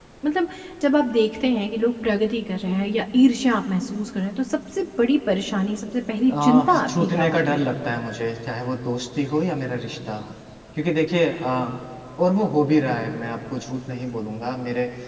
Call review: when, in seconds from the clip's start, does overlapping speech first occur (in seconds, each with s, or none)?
6.3 s